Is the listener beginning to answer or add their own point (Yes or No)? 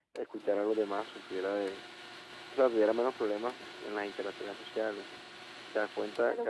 Yes